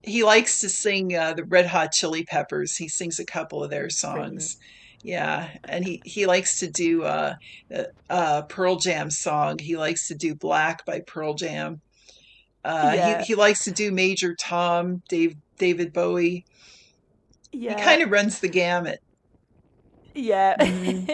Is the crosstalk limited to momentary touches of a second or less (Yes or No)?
Yes